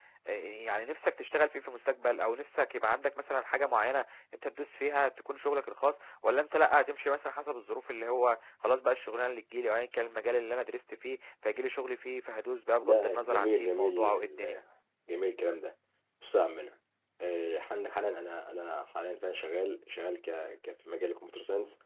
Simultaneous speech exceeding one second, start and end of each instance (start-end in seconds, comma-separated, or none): 12.8-14.6